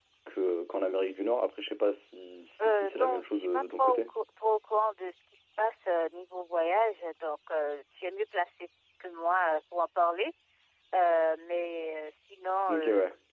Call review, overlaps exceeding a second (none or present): present